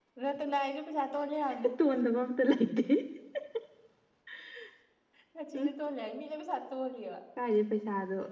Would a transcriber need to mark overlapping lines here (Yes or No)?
No